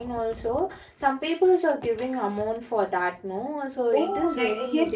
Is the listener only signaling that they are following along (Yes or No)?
No